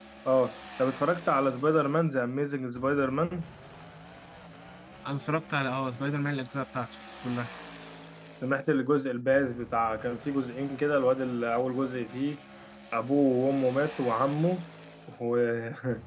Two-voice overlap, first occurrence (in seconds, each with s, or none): none